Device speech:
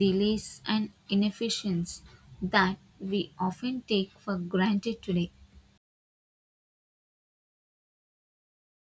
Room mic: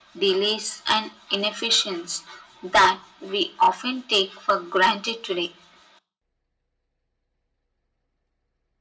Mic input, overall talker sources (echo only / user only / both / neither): echo only